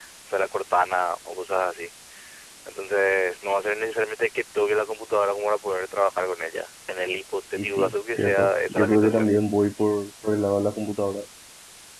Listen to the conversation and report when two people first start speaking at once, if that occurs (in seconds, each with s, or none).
7.5 s